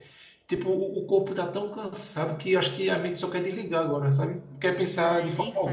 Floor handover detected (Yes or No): Yes